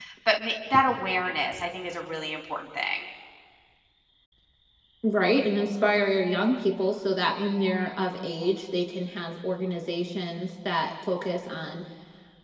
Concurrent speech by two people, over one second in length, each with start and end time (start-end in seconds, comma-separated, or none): none